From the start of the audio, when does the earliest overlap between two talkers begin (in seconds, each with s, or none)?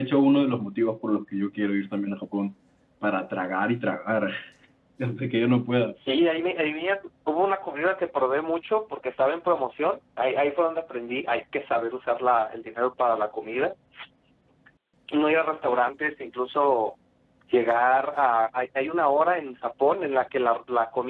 none